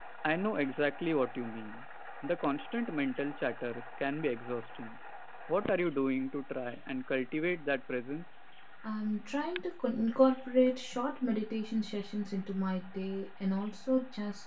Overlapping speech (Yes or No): No